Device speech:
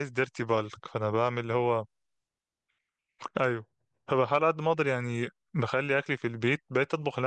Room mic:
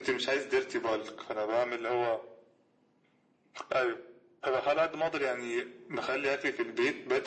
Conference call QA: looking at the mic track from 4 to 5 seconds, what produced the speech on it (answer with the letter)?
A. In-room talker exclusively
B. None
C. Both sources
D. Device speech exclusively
D